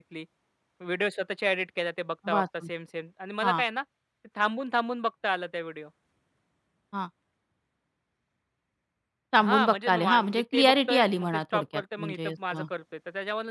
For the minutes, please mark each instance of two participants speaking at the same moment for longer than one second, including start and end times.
9.4-12.6

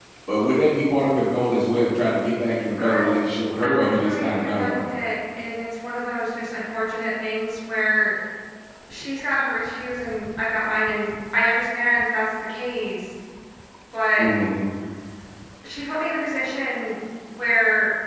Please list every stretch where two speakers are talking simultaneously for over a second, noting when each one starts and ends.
3.6-4.8

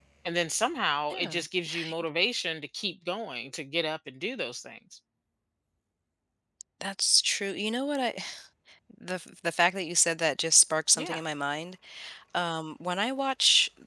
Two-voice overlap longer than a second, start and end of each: none

